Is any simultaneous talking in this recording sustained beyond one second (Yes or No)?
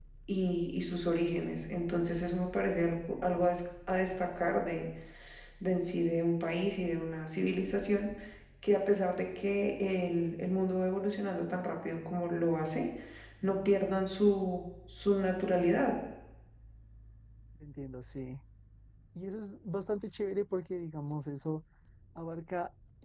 No